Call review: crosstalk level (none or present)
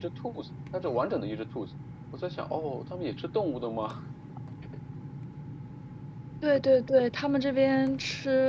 none